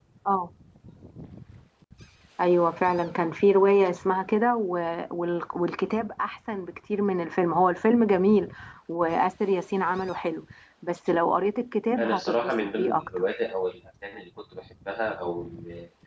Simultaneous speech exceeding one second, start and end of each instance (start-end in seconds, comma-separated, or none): 12.0-13.2